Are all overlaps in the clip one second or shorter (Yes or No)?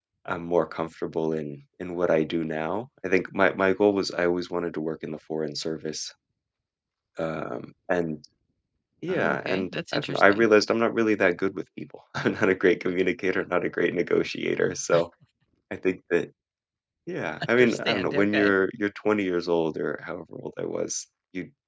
No